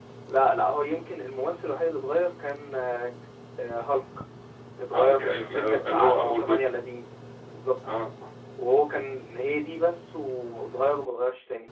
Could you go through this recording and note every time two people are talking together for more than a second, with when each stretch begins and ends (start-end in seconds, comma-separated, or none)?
4.9-6.7